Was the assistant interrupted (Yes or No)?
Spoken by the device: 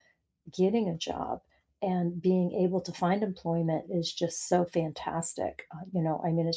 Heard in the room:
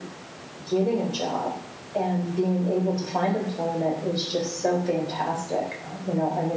No